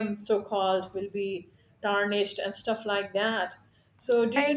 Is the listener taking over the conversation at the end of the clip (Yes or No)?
Yes